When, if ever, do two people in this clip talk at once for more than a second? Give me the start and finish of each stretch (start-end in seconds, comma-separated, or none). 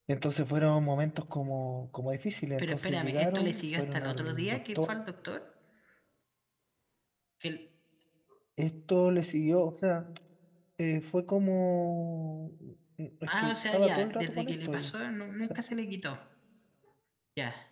2.6-4.9, 13.3-14.9